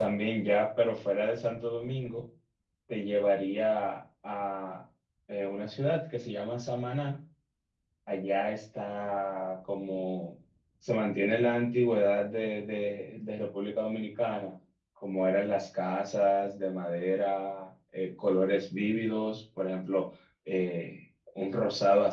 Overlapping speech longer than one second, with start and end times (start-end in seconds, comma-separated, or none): none